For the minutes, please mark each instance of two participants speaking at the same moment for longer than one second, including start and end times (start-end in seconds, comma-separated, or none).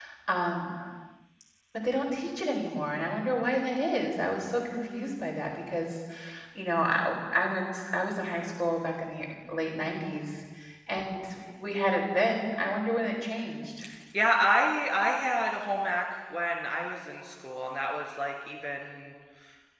none